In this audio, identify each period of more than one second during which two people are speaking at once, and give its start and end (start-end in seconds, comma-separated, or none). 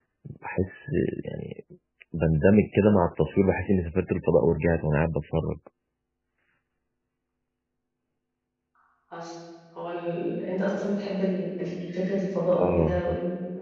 none